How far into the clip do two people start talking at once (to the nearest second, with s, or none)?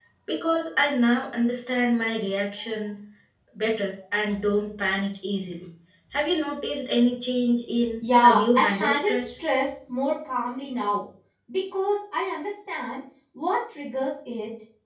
8 s